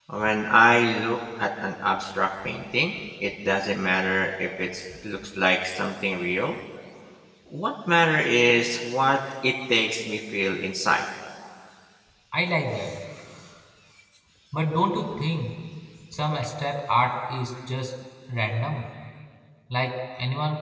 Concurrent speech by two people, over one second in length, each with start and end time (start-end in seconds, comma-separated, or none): none